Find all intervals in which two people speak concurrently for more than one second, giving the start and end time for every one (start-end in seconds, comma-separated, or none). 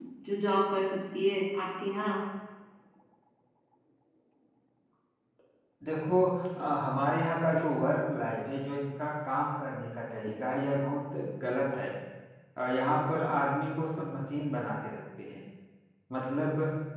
none